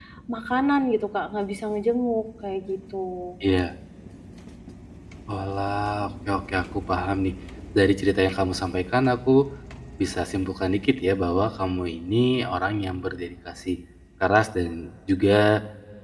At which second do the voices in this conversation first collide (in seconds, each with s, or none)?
none